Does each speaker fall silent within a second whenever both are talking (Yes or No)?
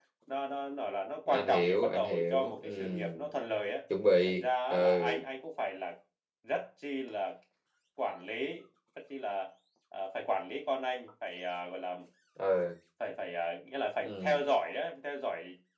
No